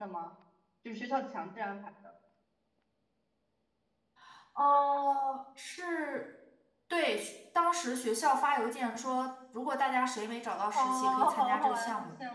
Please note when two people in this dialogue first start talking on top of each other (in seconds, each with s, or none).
10.8 s